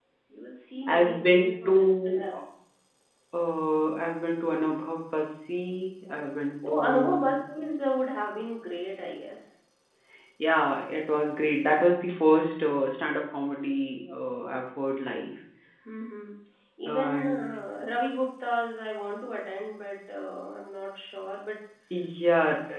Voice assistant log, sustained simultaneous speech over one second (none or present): present